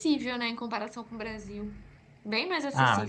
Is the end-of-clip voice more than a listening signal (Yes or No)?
Yes